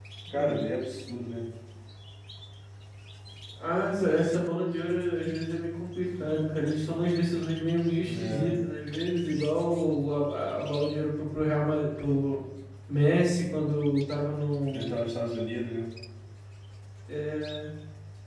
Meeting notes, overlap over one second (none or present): none